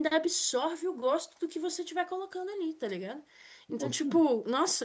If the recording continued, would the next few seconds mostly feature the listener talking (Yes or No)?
No